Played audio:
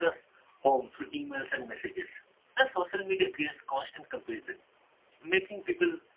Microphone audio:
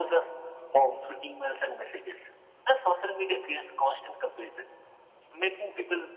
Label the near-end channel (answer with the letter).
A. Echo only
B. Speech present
A